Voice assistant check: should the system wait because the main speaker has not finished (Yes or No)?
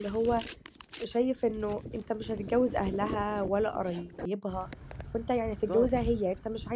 Yes